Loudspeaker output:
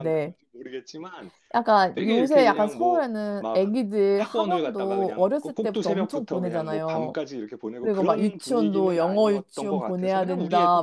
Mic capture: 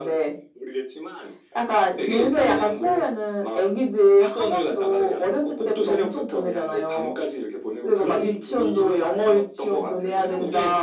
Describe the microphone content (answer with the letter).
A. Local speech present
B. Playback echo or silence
B